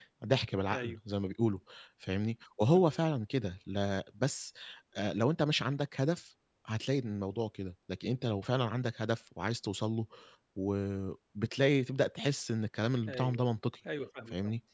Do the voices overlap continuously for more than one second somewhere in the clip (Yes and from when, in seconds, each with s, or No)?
No